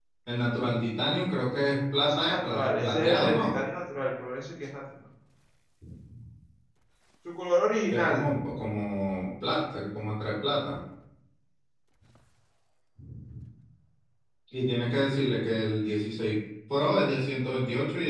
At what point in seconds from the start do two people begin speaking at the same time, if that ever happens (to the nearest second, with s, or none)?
2 s